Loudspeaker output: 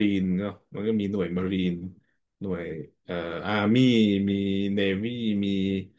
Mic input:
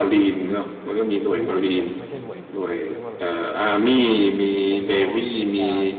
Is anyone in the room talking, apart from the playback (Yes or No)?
Yes